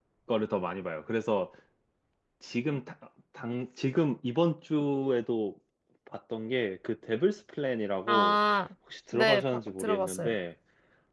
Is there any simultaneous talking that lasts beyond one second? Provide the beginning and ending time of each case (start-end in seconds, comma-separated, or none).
9.1-10.3